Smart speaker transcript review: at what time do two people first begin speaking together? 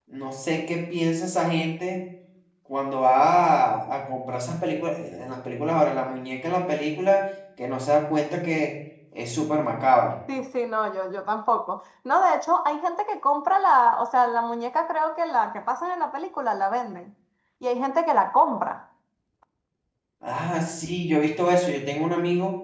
none

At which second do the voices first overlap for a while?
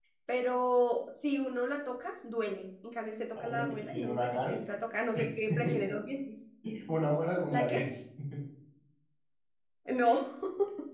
3.4 s

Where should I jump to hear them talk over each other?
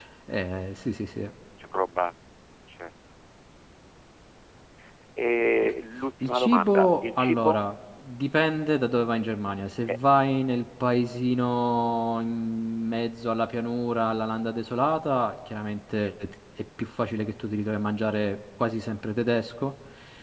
6.2 s

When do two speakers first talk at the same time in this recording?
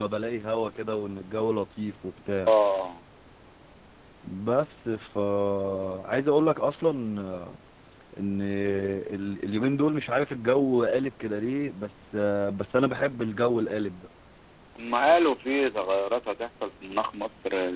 none

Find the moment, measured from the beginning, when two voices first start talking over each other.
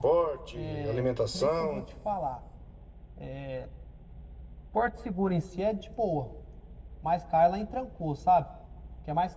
0.5 s

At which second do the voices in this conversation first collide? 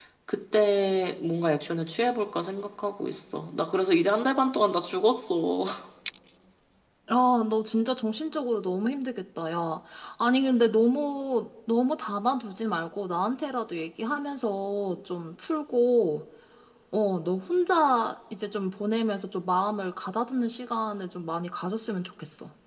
none

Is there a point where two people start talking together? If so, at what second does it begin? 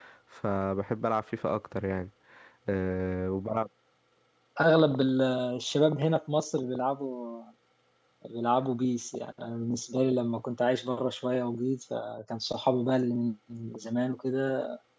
none

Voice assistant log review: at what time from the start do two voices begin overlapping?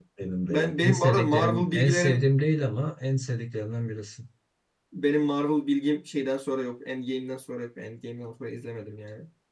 0.5 s

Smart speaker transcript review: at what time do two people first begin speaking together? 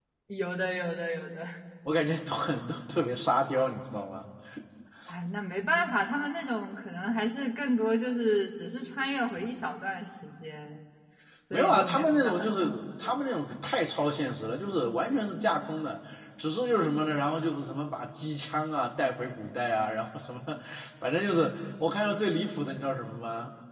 11.5 s

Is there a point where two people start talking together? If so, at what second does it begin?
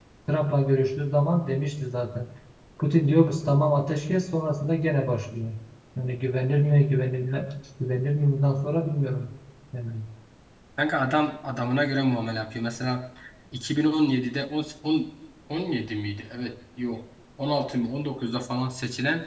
none

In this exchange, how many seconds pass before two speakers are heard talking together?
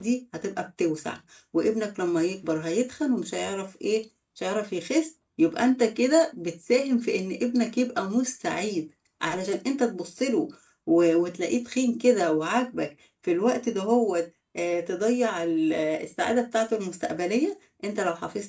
none

